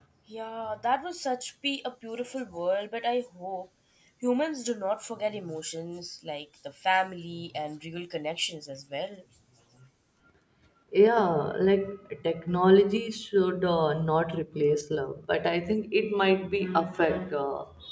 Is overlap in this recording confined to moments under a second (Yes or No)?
Yes